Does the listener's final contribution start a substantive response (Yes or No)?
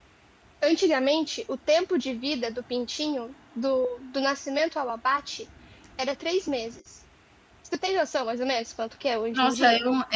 Yes